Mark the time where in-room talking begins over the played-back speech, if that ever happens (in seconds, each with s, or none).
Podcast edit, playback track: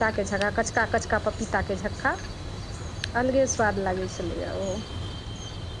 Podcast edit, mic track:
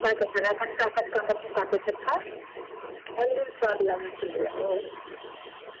none